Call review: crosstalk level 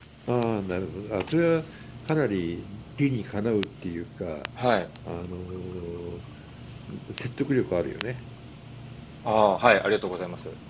none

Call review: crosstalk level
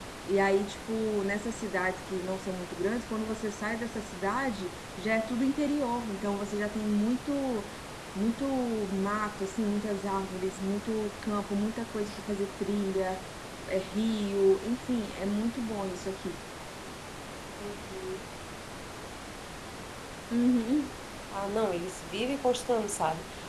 none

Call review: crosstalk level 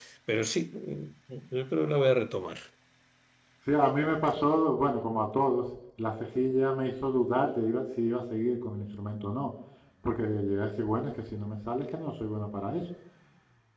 none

